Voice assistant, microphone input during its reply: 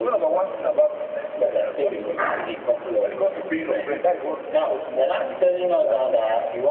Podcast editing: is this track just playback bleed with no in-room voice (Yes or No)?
Yes